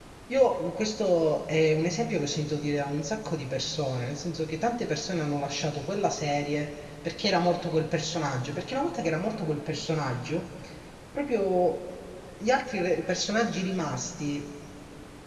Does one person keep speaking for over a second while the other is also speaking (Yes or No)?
No